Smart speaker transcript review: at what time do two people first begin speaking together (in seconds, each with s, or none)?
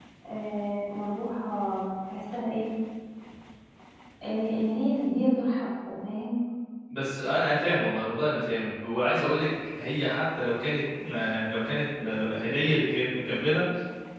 none